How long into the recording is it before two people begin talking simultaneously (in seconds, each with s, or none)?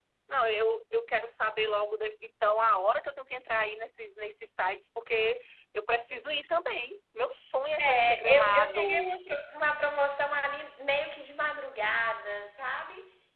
7.8 s